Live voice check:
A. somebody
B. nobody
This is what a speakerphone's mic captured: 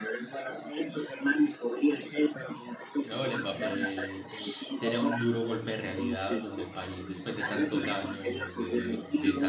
A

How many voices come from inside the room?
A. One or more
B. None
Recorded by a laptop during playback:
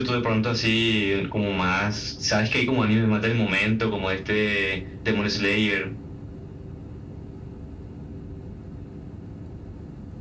B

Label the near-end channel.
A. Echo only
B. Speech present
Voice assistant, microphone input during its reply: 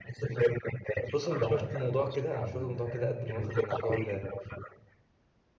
B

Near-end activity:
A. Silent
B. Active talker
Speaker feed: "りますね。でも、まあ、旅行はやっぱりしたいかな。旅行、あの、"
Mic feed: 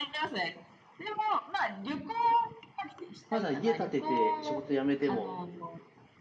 B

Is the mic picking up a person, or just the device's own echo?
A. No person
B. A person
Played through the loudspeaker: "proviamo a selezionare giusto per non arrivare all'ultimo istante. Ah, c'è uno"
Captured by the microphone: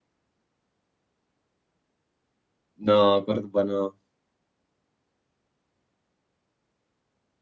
B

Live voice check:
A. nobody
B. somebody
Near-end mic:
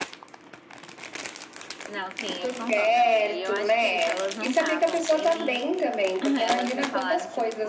A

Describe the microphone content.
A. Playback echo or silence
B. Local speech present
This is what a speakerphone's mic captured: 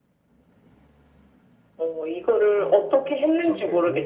B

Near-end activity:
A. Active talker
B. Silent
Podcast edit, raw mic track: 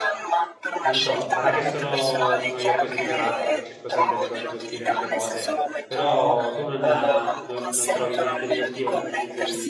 A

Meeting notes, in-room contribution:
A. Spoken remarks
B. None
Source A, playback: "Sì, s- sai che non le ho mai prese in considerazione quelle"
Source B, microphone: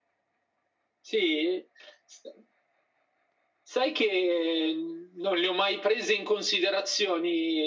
B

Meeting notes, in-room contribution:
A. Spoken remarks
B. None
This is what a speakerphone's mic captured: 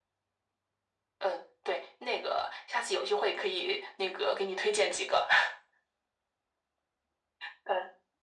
B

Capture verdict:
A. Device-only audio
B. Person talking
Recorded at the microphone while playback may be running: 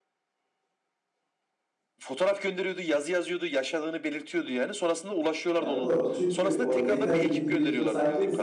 B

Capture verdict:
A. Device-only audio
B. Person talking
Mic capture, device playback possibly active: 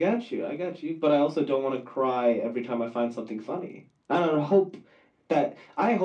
A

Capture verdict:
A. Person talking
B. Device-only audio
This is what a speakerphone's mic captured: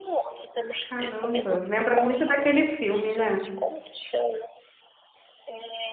A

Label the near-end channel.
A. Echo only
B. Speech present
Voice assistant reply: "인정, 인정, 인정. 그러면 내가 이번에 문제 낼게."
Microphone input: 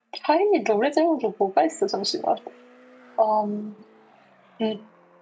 B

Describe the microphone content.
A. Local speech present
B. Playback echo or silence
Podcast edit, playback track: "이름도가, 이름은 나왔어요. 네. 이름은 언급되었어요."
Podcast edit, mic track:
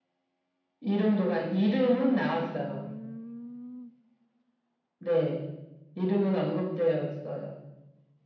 A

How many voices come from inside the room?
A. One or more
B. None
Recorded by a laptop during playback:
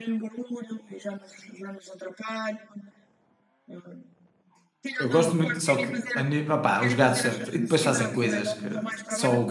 A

